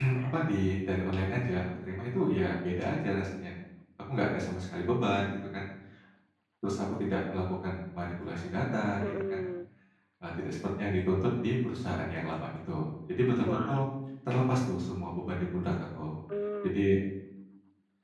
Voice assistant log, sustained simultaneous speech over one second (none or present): none